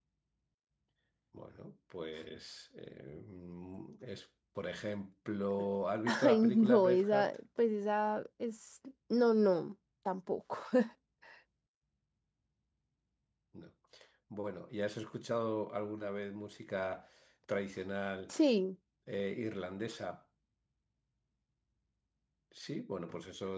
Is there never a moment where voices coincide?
No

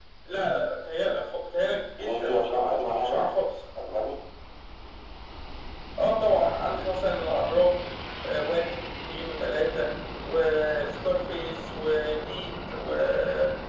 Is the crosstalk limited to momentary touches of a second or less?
No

